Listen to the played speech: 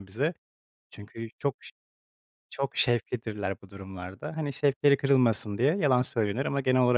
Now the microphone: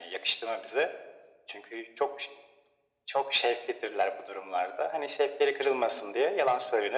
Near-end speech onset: none

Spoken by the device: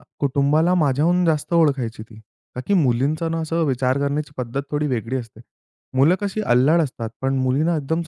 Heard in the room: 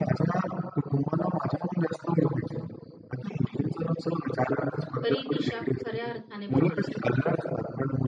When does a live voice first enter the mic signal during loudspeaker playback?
5.0 s

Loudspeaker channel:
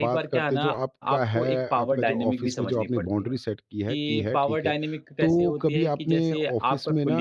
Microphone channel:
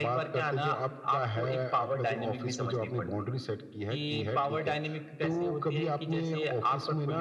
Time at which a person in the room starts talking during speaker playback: none

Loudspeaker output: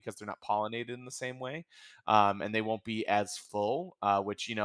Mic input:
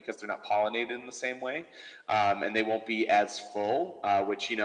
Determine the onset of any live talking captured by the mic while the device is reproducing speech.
none

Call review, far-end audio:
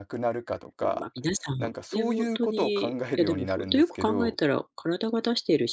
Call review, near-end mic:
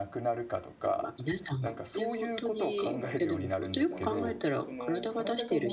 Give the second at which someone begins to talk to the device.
2.6 s

